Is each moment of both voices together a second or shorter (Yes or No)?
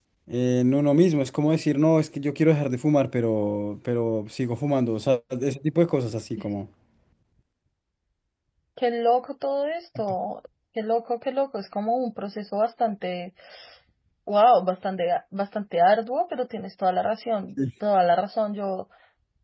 Yes